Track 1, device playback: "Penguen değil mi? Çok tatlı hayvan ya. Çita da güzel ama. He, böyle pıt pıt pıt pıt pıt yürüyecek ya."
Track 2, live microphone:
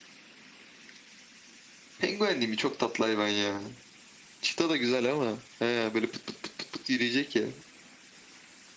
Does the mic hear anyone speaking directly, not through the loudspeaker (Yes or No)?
No